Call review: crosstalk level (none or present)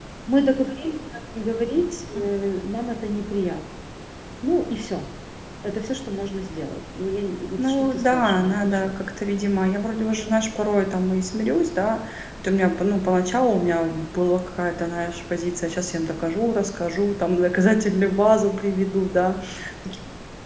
present